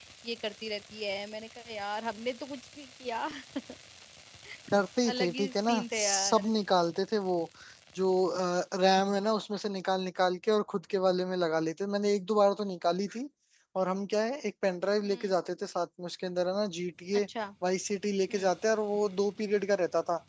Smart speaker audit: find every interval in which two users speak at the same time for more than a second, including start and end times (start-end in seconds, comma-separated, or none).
5.1-6.5